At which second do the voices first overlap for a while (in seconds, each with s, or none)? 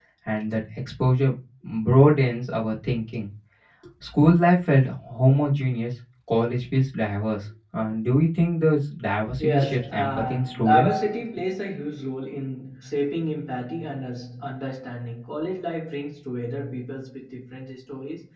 9.4 s